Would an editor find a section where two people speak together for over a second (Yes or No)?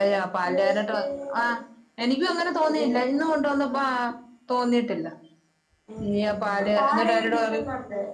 Yes